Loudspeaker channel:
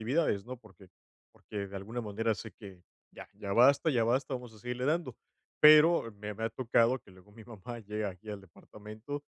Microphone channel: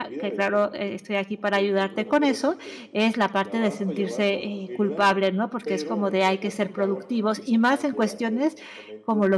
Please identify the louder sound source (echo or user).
user